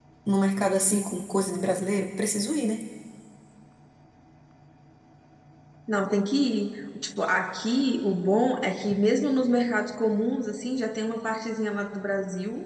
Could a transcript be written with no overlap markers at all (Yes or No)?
Yes